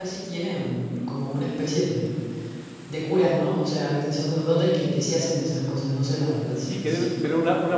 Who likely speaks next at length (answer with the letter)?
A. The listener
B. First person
A